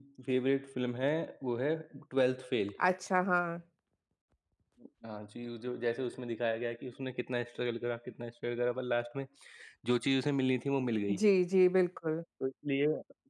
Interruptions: none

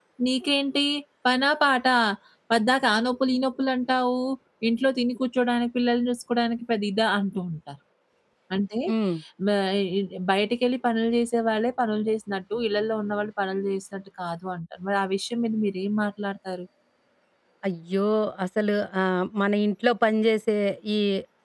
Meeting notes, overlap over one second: none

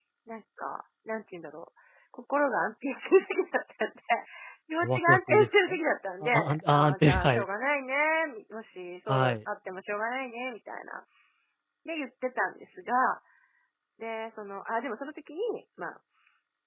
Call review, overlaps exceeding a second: present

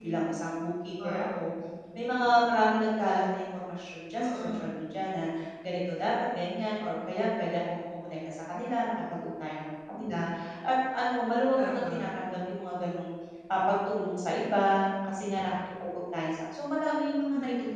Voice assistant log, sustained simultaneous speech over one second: none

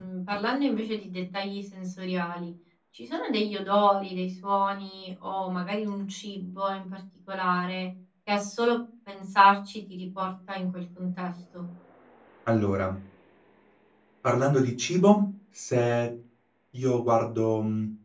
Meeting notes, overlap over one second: none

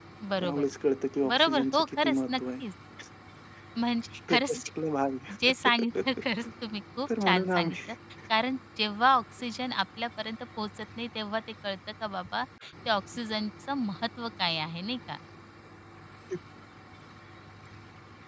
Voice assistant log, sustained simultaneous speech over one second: present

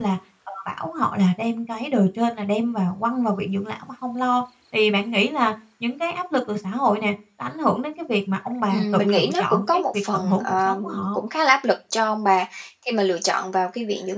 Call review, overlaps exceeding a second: present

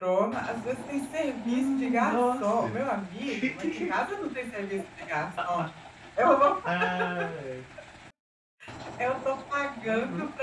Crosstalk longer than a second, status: present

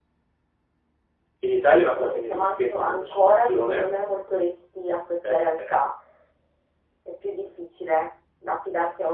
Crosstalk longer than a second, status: present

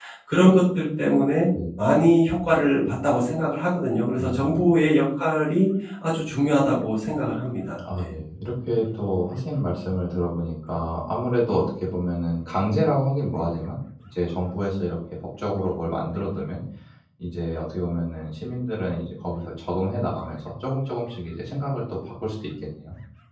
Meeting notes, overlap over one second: none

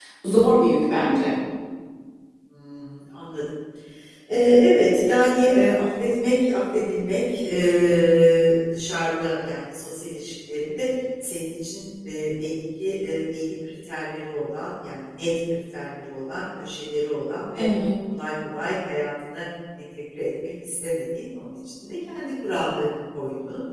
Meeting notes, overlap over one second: none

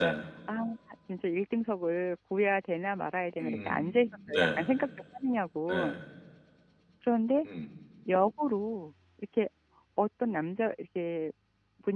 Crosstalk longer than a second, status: none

